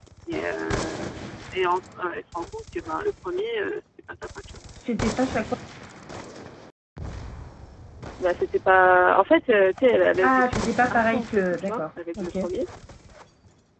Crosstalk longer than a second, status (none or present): present